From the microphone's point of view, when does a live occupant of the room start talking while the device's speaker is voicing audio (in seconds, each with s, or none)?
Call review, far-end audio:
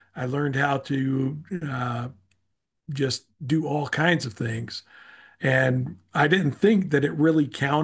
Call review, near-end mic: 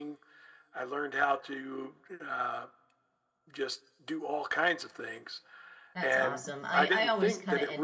5.9 s